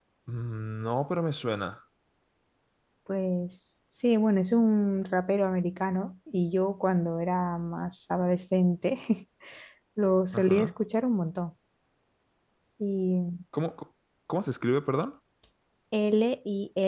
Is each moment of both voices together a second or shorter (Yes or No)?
Yes